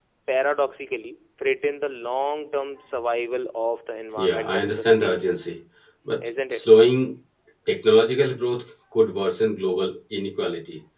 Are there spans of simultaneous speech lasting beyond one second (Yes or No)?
Yes